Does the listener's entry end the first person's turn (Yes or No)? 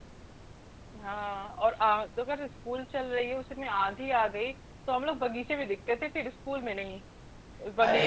No